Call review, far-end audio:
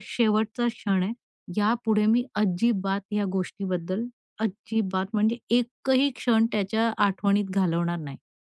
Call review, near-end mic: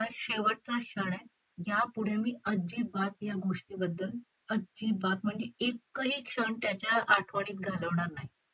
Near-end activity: none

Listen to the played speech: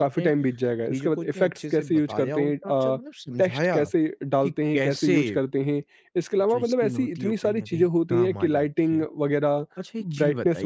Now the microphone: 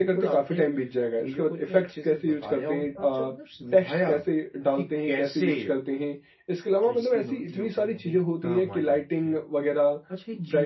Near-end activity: none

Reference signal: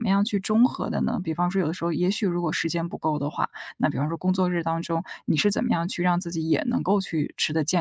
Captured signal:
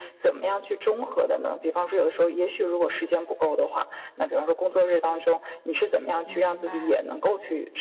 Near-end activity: present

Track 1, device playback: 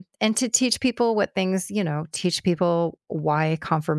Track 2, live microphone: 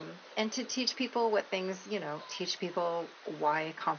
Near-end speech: none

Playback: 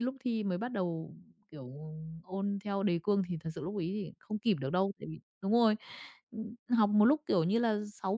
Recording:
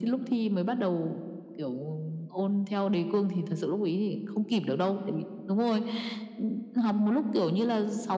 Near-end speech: none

